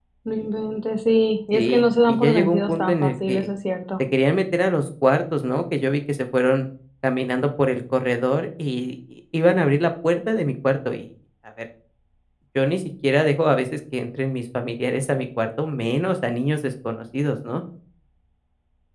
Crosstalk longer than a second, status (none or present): present